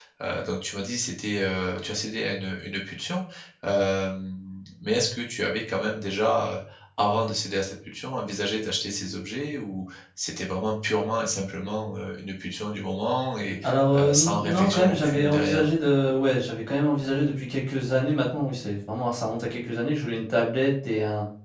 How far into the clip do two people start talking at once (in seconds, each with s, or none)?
13.9 s